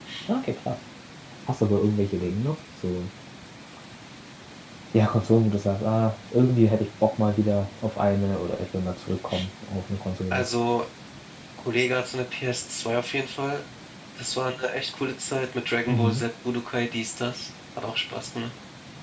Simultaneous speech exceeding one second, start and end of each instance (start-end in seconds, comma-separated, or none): none